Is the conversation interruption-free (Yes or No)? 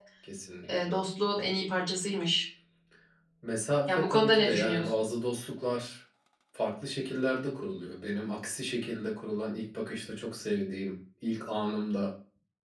No